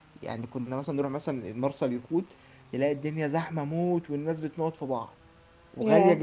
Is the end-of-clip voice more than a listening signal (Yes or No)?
No